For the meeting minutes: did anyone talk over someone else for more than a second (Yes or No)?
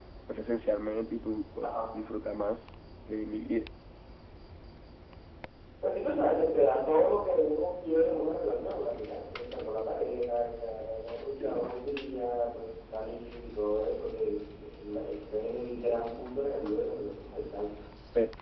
No